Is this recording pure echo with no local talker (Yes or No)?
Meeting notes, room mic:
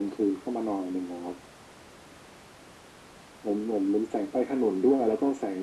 Yes